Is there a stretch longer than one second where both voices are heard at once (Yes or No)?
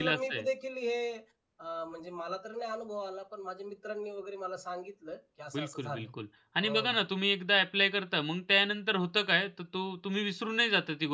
No